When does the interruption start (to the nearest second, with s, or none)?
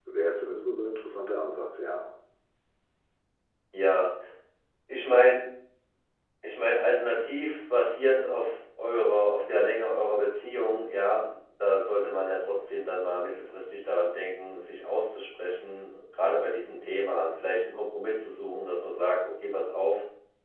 none